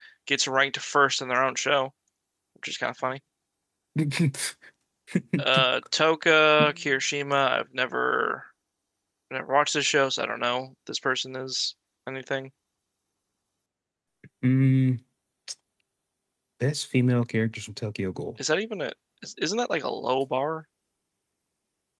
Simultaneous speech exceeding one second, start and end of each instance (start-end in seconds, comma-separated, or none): none